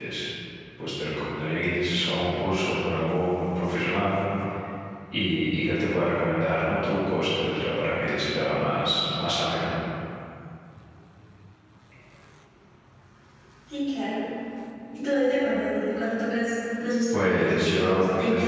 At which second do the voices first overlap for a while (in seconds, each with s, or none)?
17.1 s